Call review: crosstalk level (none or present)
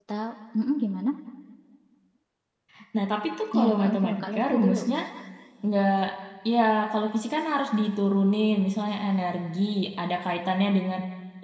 present